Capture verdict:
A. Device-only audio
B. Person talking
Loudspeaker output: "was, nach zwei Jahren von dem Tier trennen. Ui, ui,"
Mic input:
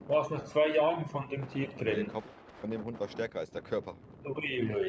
B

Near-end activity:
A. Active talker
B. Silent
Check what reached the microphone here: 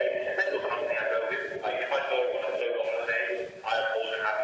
B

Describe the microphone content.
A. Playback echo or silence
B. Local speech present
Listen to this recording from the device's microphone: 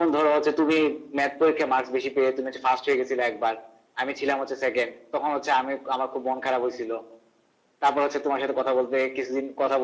A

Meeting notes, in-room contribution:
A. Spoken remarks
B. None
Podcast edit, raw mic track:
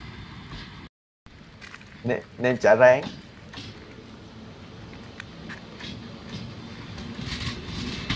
A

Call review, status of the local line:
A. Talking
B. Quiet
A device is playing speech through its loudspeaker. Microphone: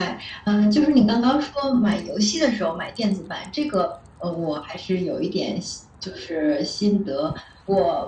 B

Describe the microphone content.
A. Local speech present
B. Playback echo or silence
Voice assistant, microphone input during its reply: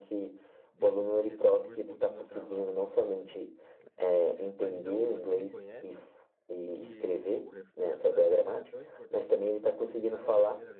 A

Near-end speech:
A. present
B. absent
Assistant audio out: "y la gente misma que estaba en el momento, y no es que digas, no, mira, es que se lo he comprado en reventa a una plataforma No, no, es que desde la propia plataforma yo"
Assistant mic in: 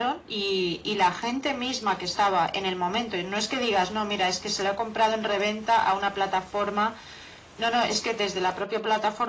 B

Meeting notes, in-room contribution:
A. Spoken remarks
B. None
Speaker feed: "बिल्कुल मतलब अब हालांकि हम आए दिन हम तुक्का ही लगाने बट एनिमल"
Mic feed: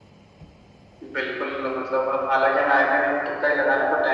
B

